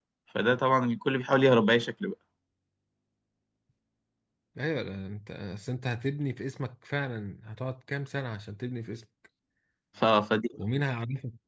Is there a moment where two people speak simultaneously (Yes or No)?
No